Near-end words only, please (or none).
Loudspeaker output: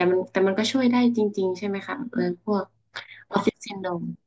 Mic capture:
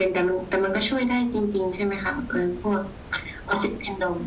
none